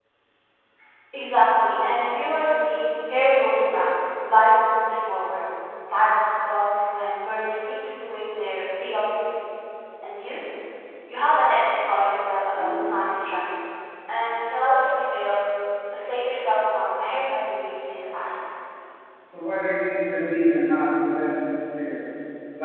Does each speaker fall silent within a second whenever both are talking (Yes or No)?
Yes